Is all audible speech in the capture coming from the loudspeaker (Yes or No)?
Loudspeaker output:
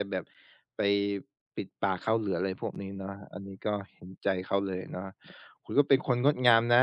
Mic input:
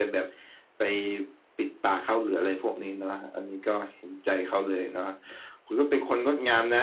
Yes